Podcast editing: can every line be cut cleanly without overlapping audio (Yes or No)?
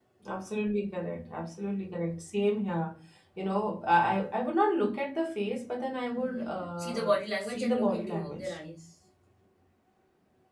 No